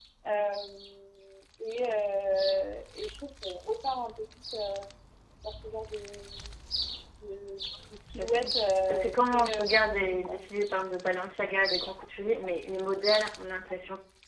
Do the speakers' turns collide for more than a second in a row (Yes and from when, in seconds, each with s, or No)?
Yes, from 8.2 s